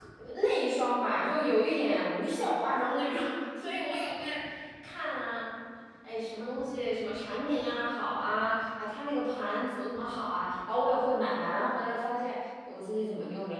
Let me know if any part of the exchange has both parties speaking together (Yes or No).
No